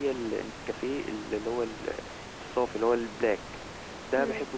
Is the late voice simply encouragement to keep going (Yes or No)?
Yes